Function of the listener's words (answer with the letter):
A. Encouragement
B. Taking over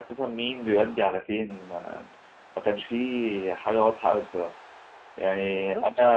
A